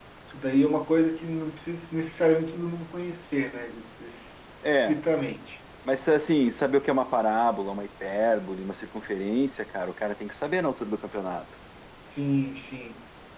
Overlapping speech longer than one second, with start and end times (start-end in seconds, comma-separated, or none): none